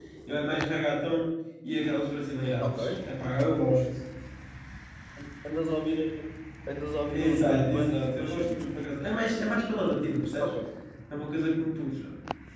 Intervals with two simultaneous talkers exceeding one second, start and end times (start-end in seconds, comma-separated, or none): 7.1-8.6